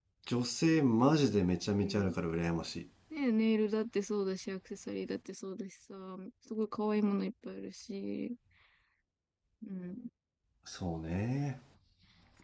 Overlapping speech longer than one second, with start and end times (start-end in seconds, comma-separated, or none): none